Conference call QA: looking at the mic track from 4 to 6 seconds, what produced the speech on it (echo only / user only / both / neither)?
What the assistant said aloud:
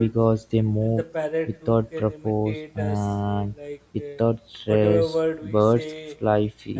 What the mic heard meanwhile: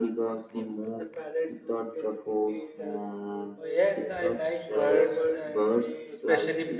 both